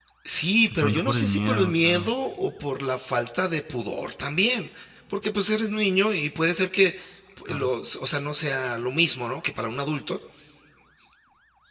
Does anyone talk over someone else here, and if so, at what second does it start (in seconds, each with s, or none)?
0.8 s